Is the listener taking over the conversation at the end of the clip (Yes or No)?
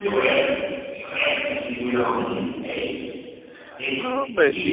Yes